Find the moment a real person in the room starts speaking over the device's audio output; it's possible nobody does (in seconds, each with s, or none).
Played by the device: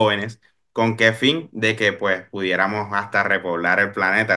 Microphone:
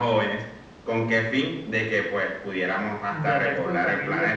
3.1 s